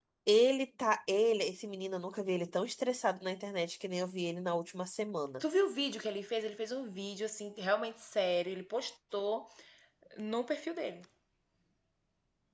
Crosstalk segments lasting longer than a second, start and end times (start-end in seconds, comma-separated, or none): none